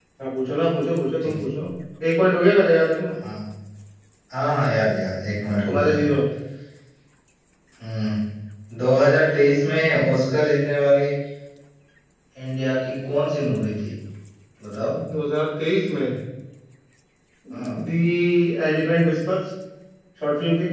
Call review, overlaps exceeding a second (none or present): none